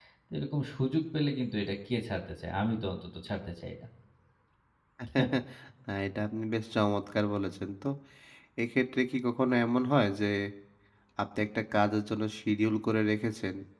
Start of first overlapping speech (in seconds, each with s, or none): none